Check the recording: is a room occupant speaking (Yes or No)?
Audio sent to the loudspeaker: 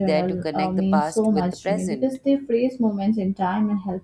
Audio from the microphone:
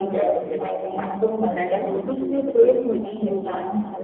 Yes